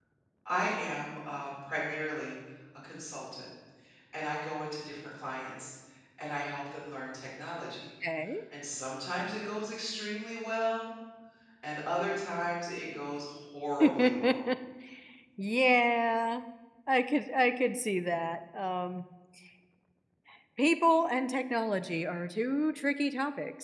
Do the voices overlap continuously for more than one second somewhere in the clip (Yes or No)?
No